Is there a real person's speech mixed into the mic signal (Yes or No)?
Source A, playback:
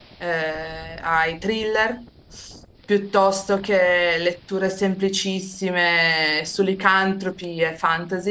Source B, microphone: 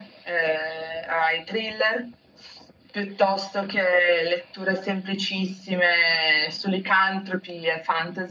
No